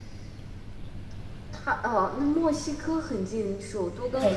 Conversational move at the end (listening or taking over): taking over